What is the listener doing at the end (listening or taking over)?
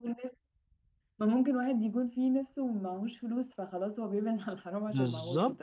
taking over